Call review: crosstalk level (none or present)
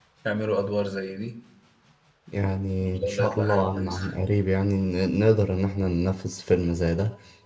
present